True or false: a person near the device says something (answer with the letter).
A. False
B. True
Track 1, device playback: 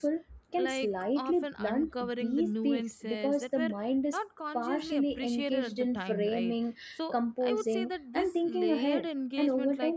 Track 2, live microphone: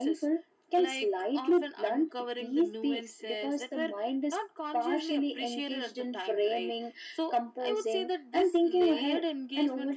A